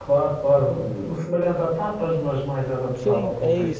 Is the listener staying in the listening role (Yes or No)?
No